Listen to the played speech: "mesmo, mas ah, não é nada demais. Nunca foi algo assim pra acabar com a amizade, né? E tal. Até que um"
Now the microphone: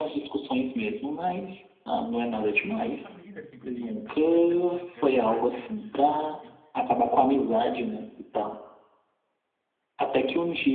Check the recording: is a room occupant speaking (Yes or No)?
Yes